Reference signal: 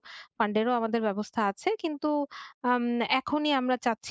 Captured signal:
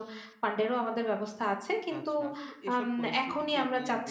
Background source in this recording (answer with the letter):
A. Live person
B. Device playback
A